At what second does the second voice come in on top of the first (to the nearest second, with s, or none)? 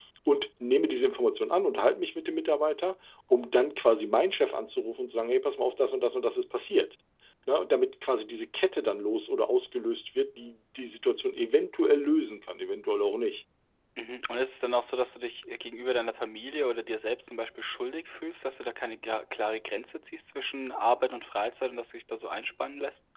none